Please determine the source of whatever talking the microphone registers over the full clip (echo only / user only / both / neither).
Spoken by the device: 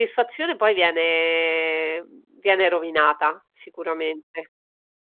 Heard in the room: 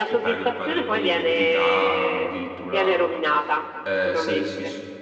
both